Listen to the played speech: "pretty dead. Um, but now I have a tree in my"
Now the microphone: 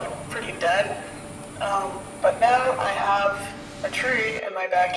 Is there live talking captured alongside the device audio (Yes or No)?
No